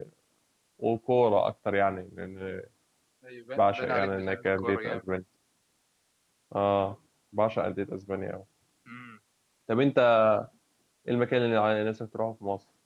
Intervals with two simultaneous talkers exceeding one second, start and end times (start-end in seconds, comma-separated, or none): 3.6-5.0